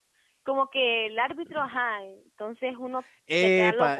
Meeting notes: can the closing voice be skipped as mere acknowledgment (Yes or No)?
No